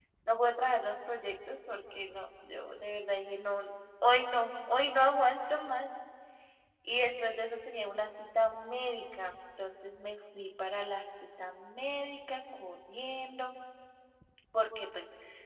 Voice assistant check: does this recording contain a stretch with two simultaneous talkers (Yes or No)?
No